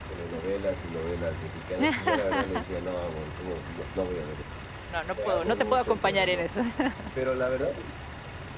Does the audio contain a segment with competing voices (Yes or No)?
Yes